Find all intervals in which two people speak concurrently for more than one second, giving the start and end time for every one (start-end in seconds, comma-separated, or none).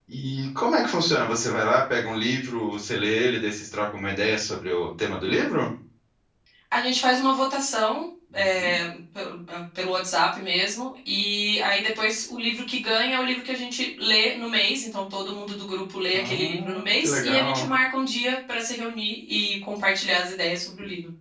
16.1-17.7